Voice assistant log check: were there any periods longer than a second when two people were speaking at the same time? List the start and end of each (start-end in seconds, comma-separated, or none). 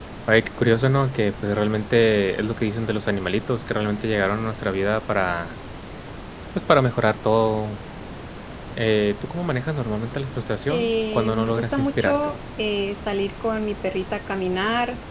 10.7-12.4